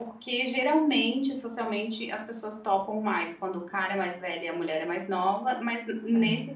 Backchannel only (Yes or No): Yes